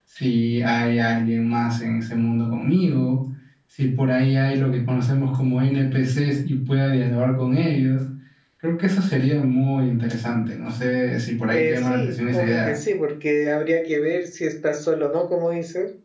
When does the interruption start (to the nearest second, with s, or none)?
12 s